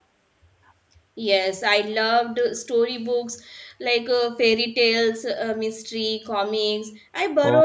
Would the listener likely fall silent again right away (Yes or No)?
Yes